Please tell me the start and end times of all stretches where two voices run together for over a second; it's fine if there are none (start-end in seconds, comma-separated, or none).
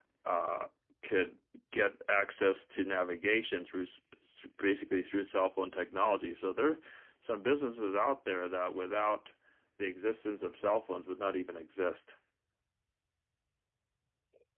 none